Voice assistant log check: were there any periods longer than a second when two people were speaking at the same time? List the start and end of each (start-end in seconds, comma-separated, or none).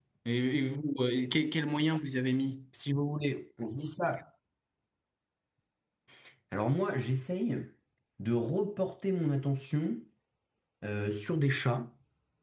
none